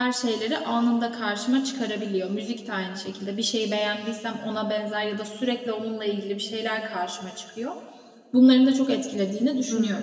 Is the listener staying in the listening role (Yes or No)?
No